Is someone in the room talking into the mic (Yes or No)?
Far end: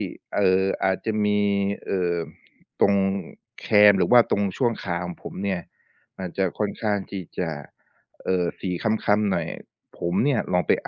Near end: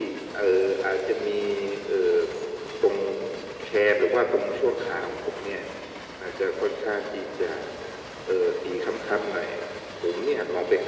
No